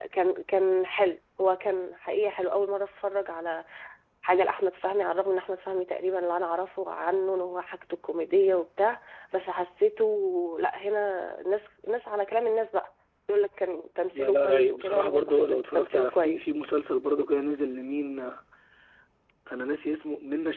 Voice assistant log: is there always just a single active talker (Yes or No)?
No